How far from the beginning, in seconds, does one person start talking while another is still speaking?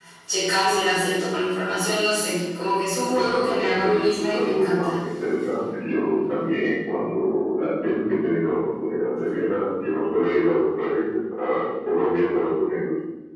3.1 s

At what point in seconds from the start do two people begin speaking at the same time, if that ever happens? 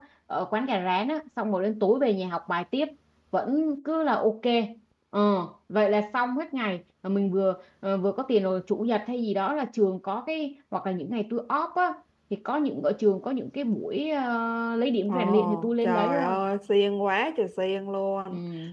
15.1 s

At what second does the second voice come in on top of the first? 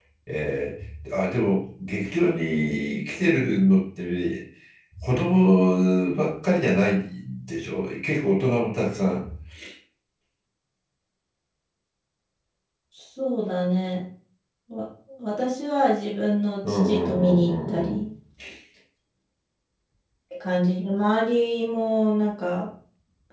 16.6 s

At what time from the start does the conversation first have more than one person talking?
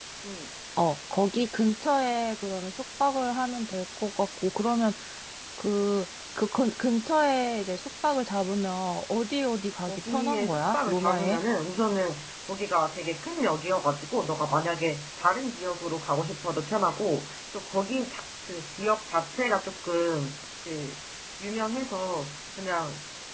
9.9 s

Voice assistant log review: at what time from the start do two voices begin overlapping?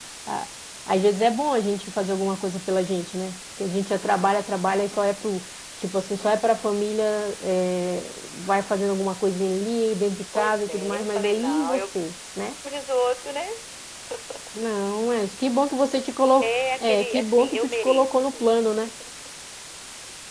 10.3 s

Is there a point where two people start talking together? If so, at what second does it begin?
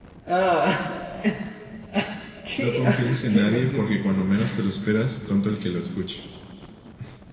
2.5 s

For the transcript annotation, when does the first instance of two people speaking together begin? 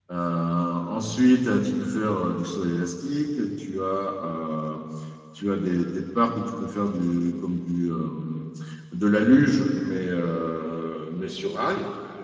none

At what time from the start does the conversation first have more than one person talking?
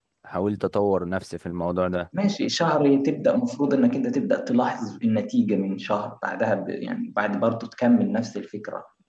none

